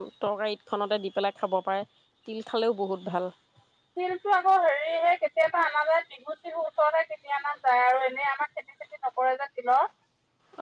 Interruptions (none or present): none